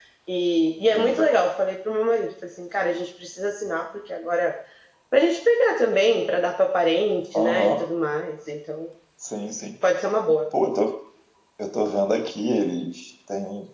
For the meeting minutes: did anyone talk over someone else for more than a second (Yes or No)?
No